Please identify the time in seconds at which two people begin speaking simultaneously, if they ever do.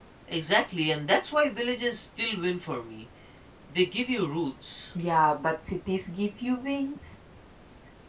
none

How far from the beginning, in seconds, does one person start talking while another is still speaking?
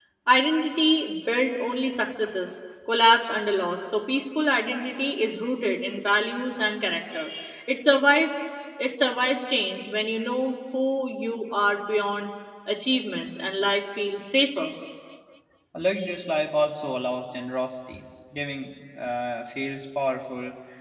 none

